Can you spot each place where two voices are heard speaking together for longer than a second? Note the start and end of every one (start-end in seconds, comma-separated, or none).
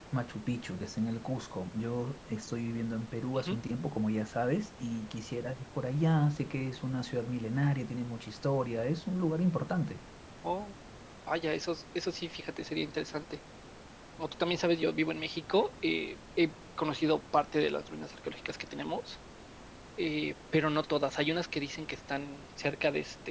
none